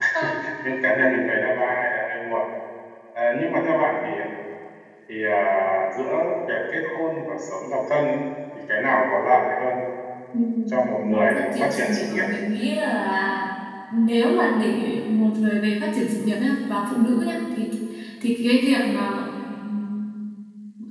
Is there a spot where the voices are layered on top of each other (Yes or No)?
Yes